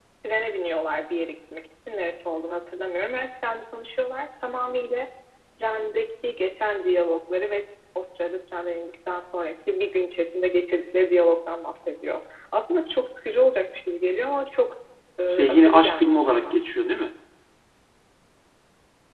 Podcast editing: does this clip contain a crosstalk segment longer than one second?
Yes, from 15.3 s

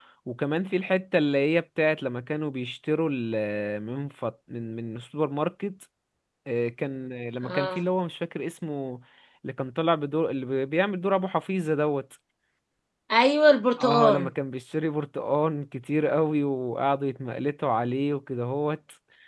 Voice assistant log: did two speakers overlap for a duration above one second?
No

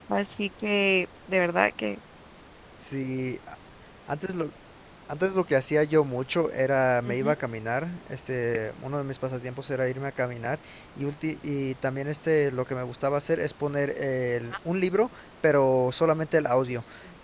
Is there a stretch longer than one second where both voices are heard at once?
No

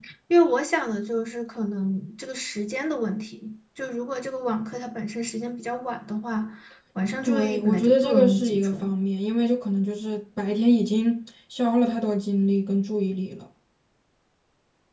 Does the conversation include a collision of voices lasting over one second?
Yes, from 7.2 s

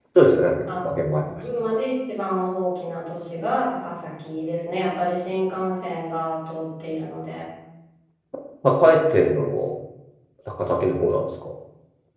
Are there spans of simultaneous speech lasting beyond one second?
No

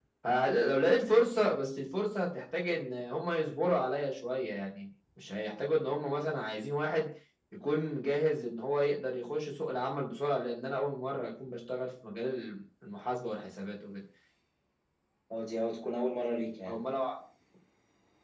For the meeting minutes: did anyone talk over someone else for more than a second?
No

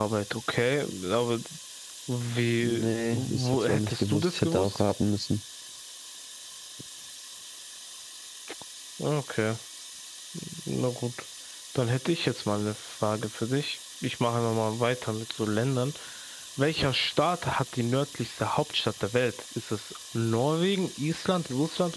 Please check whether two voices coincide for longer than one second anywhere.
Yes, from 2.6 s

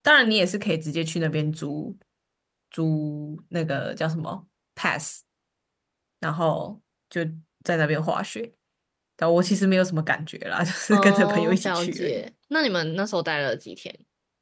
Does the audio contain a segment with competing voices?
Yes, from 10.9 s

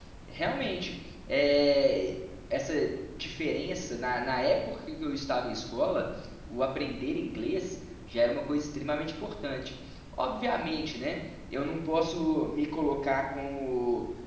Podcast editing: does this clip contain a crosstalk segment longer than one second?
No

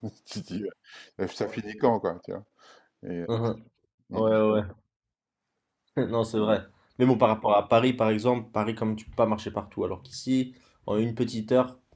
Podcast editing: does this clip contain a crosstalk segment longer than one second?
No

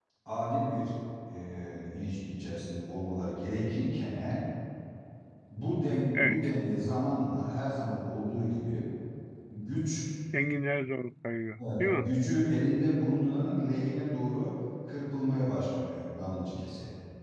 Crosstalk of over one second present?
No

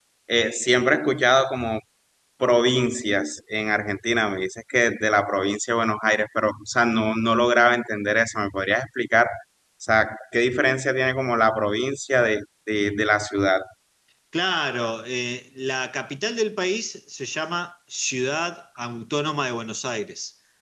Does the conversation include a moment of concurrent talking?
No

